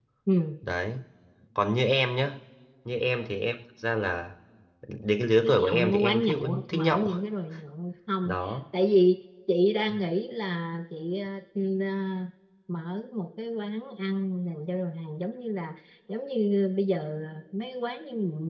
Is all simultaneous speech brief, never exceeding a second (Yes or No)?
No